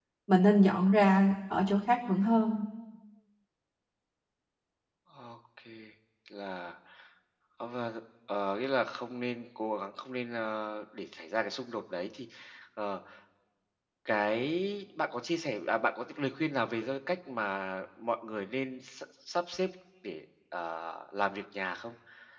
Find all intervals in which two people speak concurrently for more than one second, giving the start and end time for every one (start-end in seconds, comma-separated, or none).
none